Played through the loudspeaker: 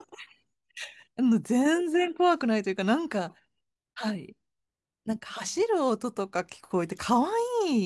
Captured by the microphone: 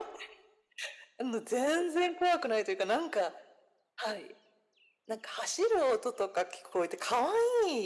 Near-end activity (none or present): none